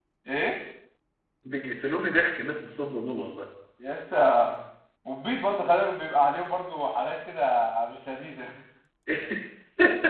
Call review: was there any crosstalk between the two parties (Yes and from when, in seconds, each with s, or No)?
No